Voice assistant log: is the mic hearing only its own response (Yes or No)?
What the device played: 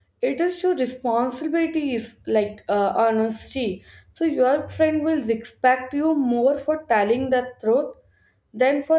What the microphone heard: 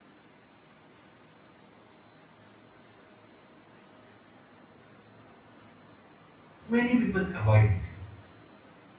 No